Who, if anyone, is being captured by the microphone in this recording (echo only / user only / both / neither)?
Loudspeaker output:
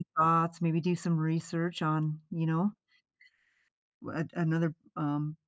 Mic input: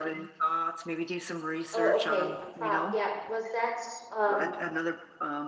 both